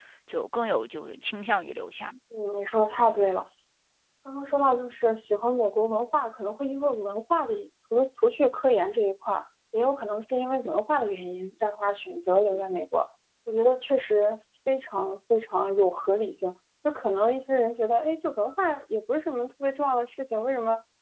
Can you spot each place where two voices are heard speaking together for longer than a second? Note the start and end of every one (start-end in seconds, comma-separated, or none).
none